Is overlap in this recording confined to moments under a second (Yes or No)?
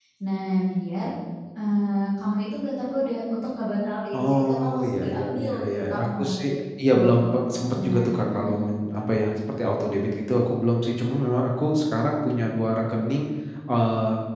No